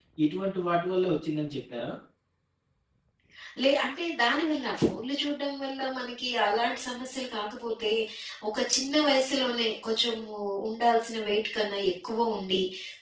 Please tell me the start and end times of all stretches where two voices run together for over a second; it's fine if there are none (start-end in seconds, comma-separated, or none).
none